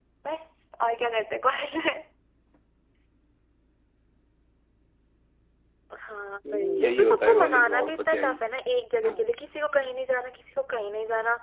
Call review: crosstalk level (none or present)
present